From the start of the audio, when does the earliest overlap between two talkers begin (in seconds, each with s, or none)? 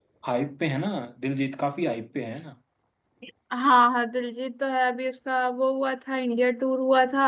none